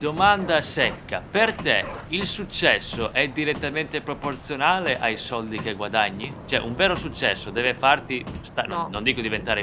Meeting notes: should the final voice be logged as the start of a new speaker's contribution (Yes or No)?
No